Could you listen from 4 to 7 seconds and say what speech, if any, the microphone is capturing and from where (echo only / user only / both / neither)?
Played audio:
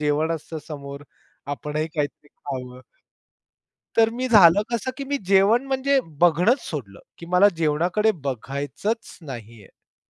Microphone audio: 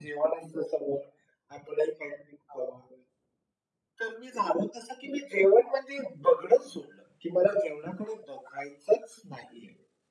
echo only